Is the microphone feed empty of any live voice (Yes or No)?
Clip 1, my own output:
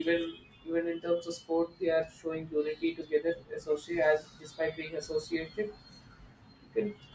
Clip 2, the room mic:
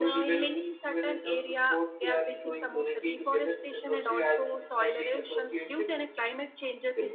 No